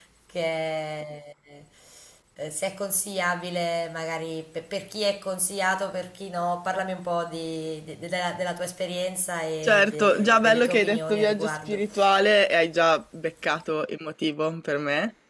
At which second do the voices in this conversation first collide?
9.6 s

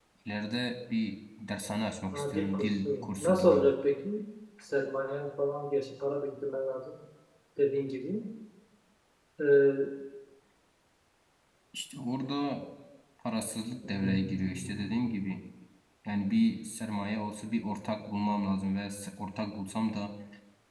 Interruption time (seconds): 2.1 s

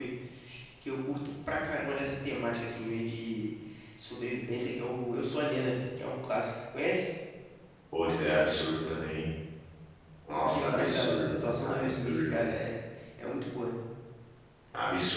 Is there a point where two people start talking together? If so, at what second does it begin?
10.3 s

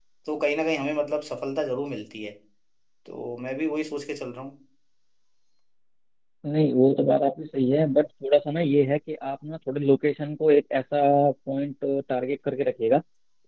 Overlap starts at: none

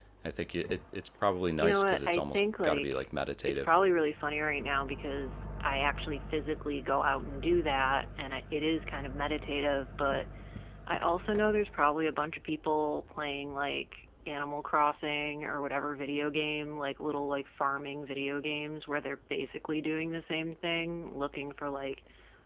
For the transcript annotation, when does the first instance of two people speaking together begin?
1.6 s

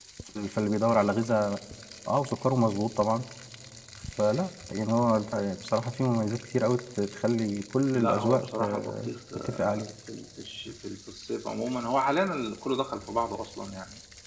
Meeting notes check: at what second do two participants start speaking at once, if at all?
7.9 s

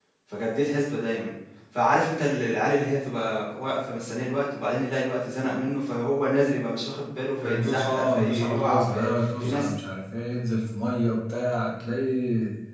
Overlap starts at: 7.4 s

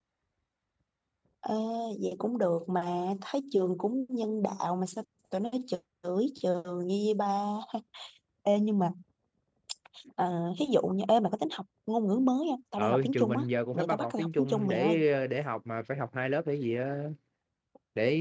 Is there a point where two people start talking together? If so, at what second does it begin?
12.8 s

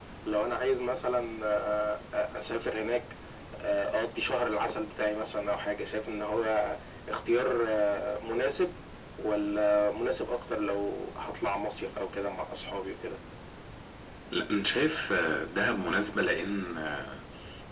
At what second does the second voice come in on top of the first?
none

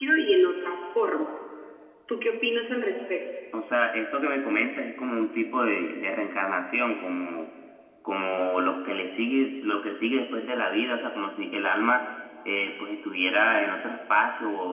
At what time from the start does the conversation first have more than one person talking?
none

